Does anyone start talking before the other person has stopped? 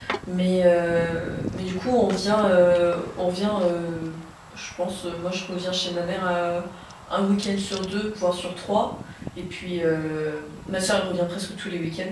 No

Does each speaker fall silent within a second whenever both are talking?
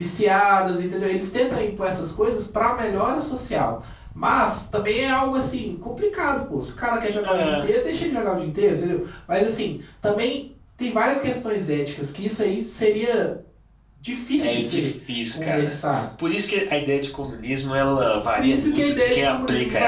No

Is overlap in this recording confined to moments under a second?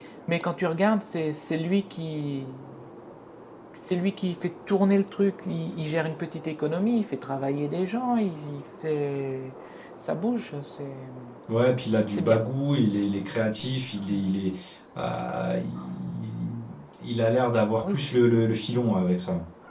Yes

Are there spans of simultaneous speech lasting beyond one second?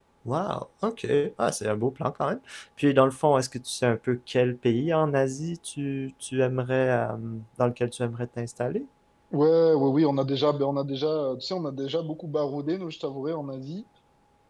No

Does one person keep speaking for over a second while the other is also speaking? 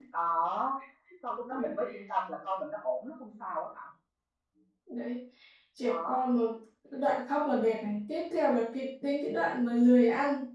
No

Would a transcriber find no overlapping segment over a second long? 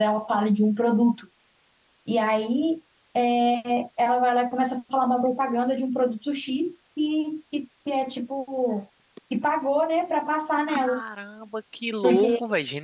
Yes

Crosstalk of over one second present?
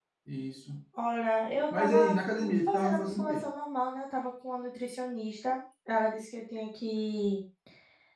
Yes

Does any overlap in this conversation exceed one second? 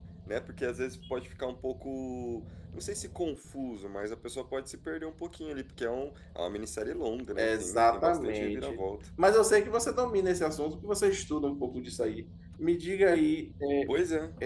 Yes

